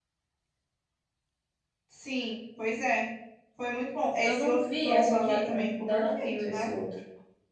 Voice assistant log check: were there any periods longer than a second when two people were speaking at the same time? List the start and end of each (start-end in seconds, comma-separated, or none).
4.2-6.7